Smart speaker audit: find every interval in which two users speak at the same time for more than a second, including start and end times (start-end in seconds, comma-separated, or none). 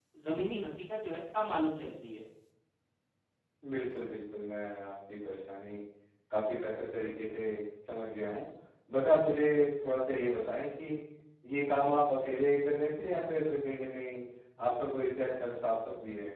none